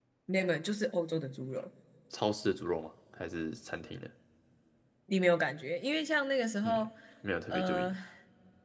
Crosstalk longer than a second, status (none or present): none